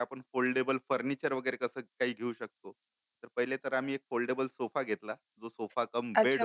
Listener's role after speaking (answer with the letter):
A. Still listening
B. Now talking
B